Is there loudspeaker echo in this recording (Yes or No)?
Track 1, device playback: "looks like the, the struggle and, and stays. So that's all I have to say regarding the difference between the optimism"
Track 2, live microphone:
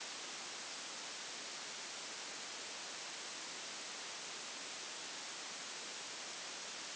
No